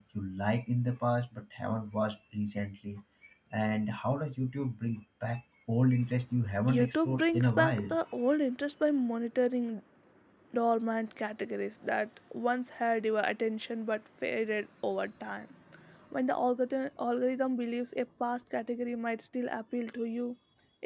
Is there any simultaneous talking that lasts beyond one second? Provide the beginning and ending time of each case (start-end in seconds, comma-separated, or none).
6.7-8.0